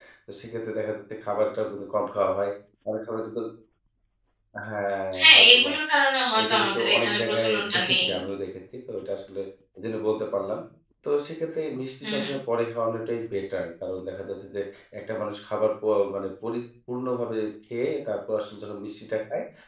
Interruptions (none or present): present